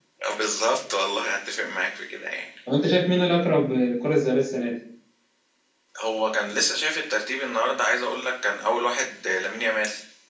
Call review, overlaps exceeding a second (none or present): none